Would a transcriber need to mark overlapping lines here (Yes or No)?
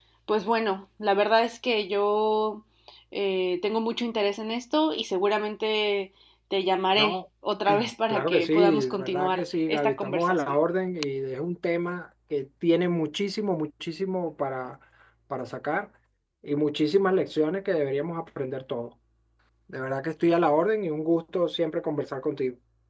Yes